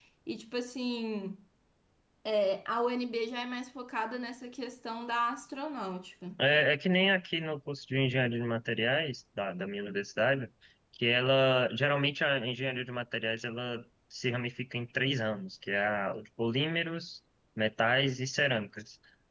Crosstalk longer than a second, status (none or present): none